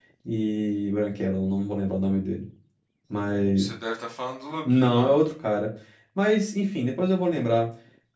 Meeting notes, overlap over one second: none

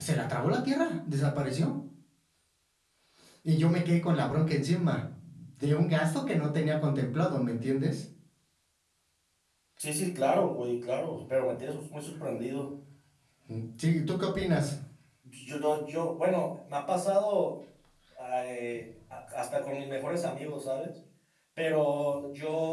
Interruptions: none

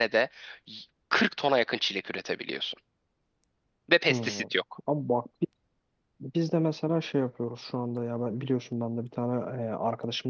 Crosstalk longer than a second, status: none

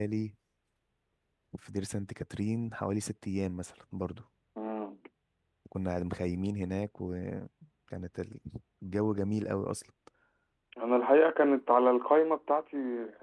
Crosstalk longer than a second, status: none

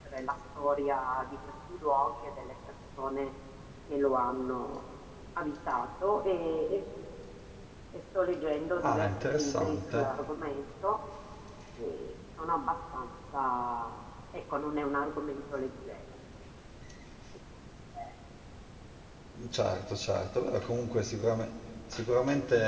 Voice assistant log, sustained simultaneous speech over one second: present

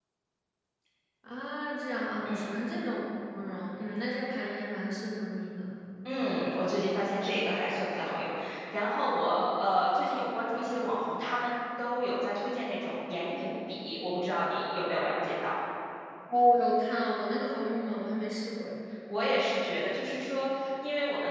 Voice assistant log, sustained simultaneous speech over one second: none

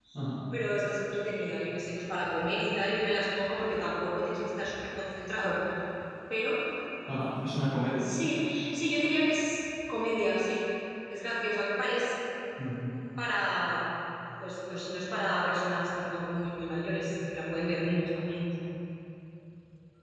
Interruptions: none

